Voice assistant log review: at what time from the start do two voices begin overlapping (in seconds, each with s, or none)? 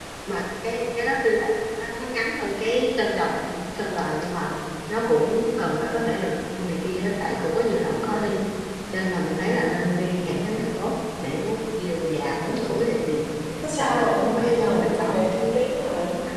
13.8 s